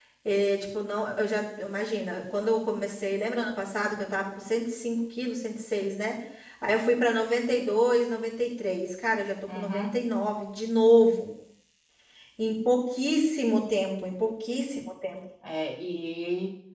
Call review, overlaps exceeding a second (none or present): none